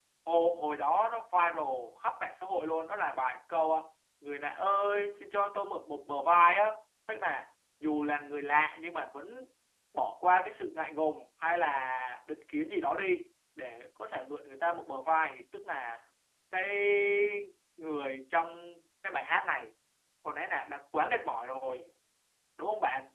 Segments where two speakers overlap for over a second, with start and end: none

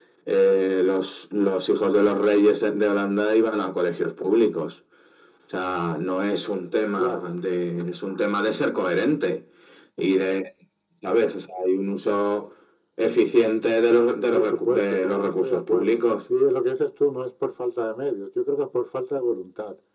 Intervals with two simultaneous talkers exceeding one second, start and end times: 14.3-16.0

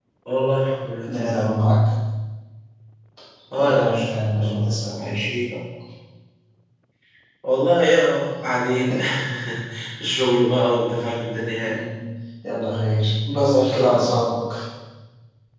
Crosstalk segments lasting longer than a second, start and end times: 3.6-5.2

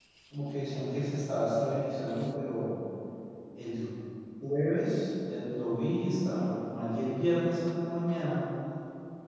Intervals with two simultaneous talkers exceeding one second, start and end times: none

